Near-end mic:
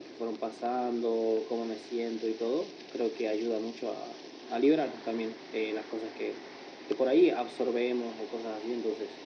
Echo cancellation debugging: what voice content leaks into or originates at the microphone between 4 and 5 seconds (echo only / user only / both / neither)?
echo only